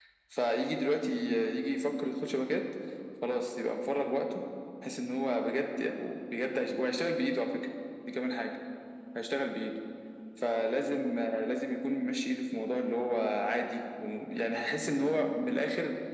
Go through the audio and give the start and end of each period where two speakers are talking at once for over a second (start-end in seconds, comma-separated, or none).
none